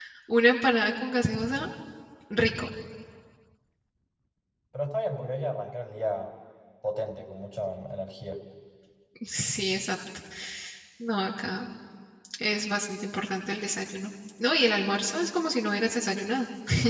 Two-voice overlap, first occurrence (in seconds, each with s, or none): none